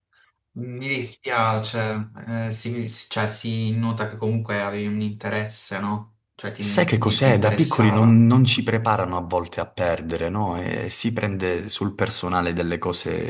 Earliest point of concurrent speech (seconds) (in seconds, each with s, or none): 6.6 s